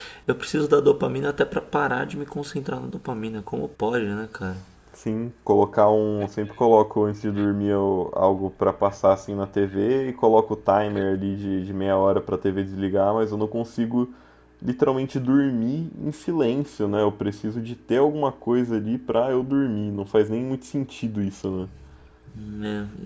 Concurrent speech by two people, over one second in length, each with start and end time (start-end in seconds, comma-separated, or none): none